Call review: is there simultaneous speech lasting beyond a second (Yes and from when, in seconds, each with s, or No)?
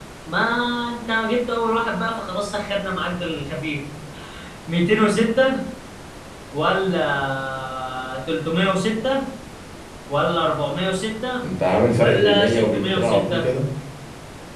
Yes, from 12.0 s